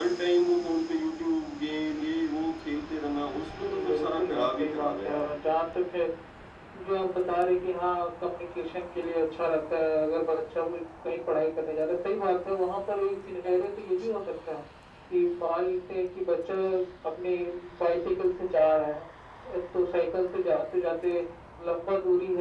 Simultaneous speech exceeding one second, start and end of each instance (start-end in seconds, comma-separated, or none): 3.9-5.2